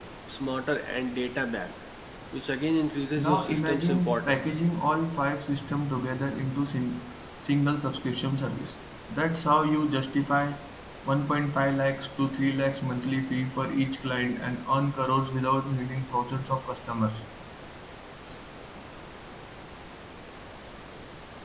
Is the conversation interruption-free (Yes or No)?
No